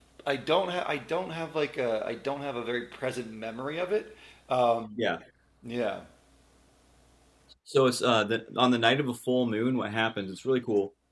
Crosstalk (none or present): none